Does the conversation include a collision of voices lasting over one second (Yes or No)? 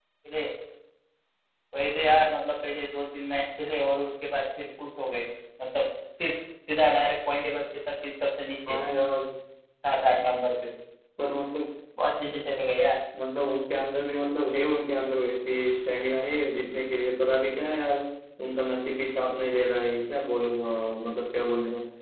No